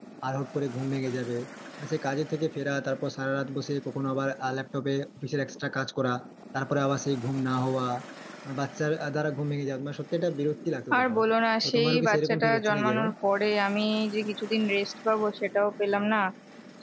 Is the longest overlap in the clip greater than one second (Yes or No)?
Yes